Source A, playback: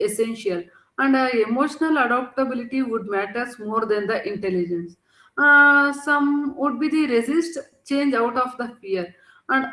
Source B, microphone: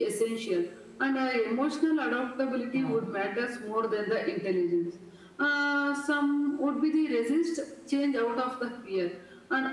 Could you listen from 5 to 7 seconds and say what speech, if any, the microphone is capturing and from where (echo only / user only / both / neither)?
echo only